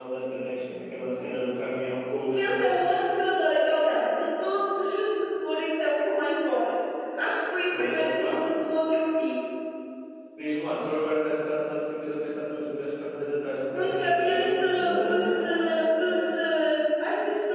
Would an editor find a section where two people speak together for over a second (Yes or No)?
Yes